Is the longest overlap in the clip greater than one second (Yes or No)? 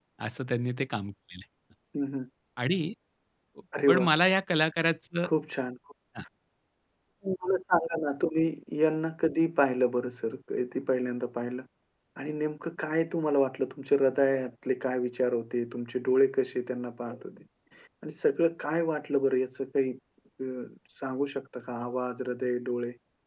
No